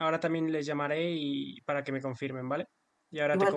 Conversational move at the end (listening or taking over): taking over